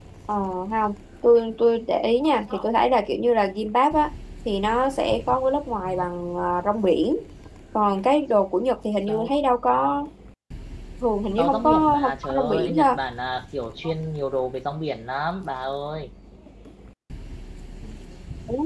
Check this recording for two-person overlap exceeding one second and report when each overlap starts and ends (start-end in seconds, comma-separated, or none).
11.4-13.0